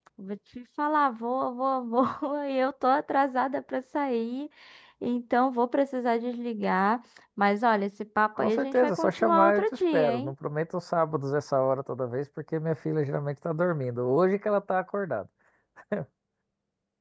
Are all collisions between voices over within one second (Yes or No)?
No